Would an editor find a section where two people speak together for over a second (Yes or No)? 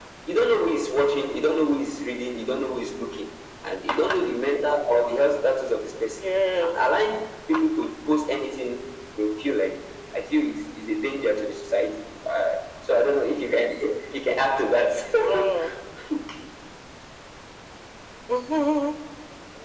No